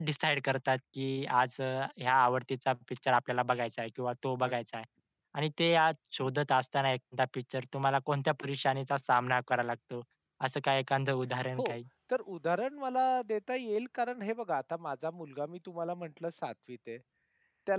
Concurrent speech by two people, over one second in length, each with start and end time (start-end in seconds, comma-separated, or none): none